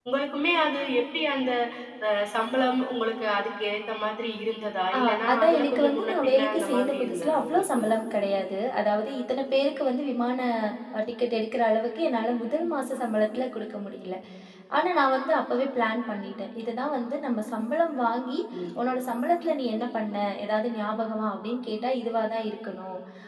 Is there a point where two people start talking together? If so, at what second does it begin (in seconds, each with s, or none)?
4.9 s